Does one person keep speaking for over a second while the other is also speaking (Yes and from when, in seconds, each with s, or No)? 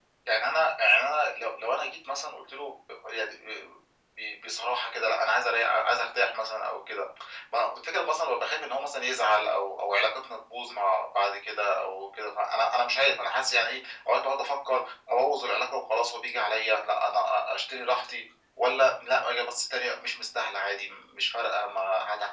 No